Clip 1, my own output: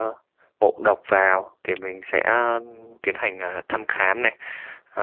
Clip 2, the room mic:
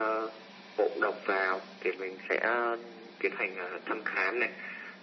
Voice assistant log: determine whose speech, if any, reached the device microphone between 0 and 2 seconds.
echo only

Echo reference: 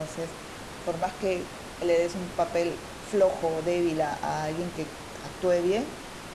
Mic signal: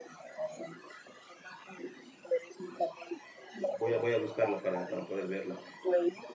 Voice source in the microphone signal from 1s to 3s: echo only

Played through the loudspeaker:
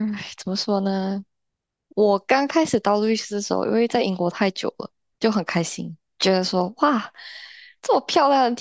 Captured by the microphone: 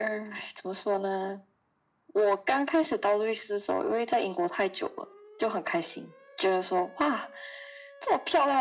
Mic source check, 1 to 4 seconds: echo only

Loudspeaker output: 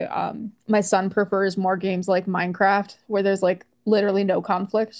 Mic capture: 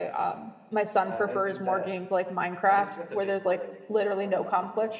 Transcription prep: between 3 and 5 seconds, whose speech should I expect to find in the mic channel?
both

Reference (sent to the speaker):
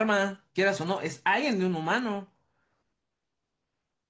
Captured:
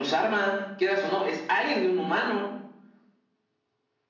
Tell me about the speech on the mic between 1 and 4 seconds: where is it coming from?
echo only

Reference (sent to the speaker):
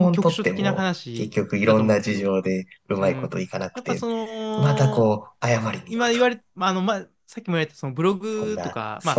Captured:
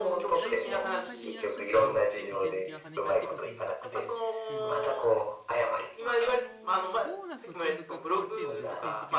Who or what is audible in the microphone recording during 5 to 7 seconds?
both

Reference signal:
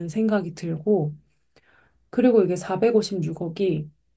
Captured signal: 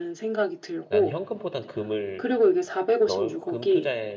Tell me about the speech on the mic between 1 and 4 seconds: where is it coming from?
both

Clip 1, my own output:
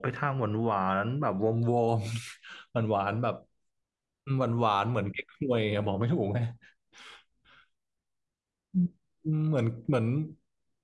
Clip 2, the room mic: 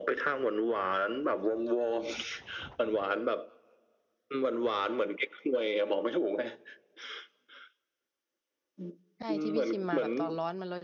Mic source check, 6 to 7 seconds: echo only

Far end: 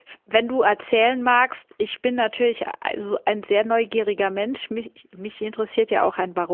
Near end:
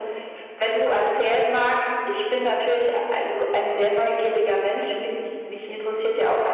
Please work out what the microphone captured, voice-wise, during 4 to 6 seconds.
echo only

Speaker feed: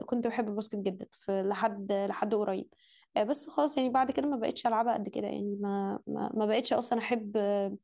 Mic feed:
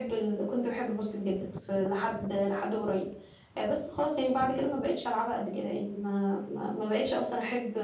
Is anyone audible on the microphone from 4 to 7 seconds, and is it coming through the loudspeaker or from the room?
echo only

